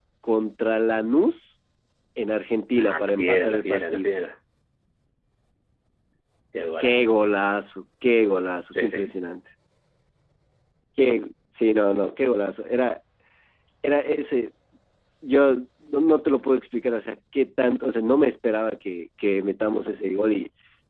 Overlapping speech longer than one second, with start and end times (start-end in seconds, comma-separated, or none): 2.8-4.1